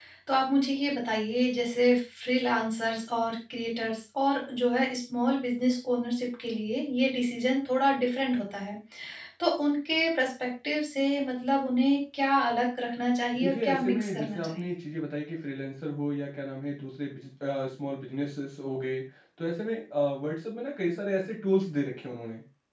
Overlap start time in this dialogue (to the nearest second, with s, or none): 13 s